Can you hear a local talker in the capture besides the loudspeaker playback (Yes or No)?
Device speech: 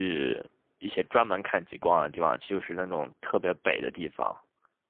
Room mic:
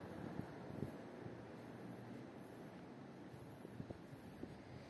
No